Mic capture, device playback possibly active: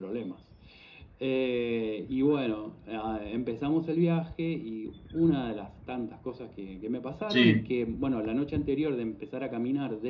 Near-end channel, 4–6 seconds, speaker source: echo only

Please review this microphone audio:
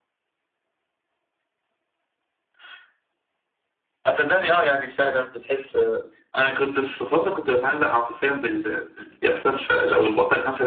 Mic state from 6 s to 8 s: echo only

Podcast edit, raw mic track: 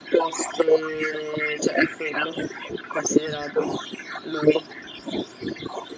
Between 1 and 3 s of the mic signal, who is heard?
echo only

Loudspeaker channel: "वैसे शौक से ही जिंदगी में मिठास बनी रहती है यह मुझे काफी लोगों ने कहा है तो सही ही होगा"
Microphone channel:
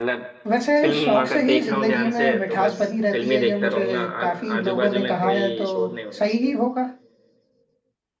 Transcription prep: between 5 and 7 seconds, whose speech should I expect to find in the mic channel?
both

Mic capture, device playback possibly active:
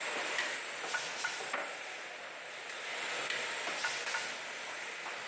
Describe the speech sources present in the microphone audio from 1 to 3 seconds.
neither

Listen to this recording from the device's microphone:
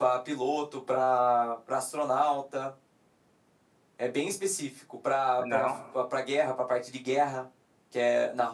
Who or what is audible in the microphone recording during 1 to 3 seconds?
echo only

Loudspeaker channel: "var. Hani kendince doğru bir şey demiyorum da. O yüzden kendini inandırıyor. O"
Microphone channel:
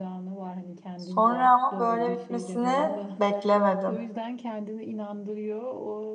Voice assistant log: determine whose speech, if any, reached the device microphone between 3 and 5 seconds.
both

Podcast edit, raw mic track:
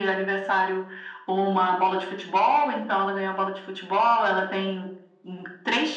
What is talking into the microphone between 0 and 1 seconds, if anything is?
echo only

